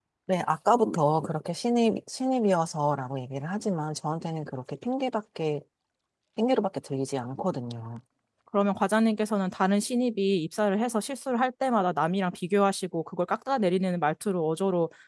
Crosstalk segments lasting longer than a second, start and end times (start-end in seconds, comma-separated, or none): none